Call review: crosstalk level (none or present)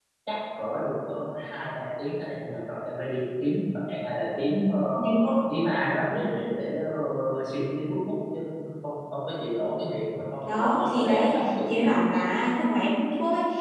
present